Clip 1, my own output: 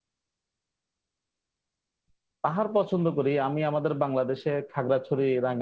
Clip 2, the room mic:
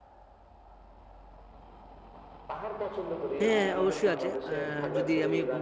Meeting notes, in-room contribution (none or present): present